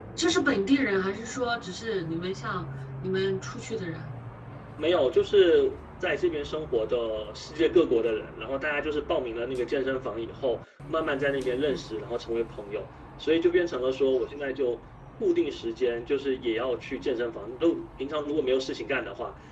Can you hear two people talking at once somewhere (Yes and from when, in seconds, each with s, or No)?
No